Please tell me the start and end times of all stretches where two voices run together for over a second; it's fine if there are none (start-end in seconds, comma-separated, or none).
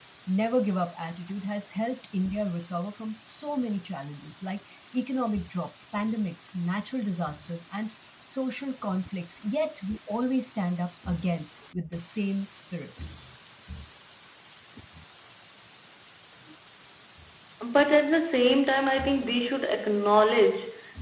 none